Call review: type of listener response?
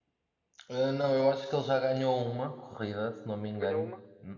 listening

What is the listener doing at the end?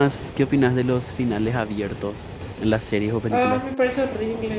taking over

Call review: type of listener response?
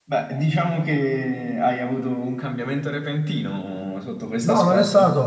taking over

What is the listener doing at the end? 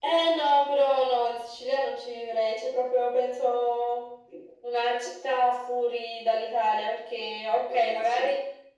listening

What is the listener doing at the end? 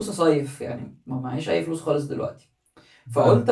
listening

